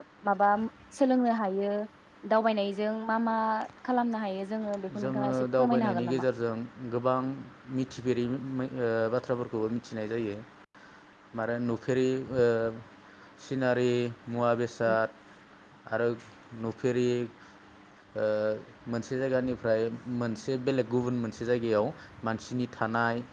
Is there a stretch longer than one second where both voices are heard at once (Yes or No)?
Yes